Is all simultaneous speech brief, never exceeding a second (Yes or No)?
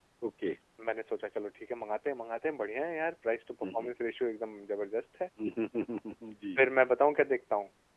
Yes